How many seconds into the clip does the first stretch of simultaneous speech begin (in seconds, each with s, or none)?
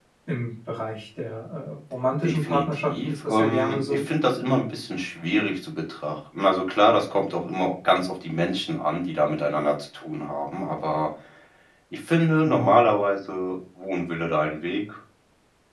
2.2 s